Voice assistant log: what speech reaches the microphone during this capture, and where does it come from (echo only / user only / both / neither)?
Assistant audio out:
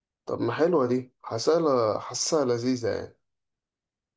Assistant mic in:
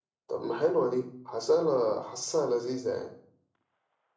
echo only